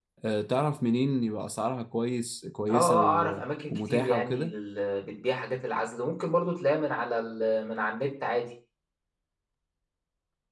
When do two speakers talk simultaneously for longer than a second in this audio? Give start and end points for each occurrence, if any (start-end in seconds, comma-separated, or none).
2.7-4.5